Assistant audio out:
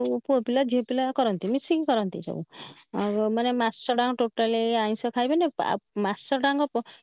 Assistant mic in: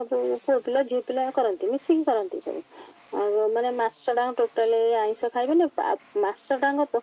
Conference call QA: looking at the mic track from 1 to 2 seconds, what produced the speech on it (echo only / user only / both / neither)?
echo only